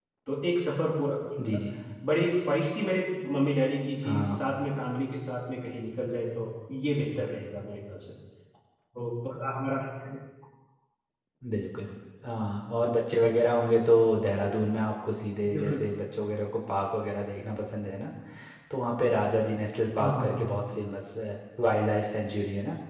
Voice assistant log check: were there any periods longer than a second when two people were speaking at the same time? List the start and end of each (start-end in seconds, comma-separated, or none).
none